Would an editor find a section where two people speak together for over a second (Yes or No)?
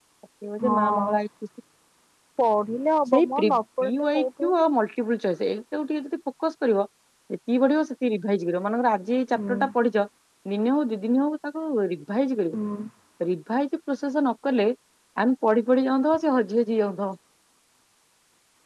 Yes